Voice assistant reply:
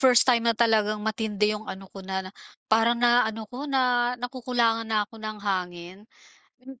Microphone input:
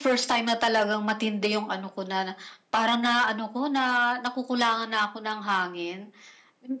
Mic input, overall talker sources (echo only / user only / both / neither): echo only